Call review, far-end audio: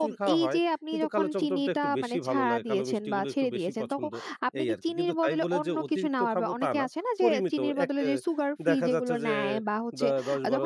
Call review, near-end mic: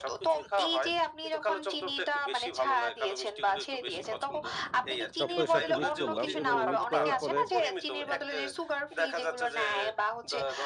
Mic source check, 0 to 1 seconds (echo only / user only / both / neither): echo only